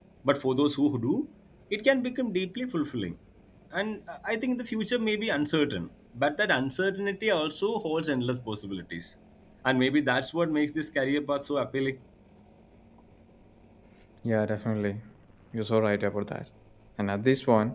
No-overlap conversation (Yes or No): Yes